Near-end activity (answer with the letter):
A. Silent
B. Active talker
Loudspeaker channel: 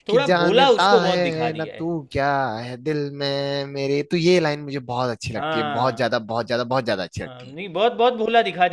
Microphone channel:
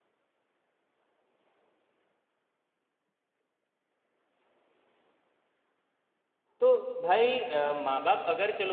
B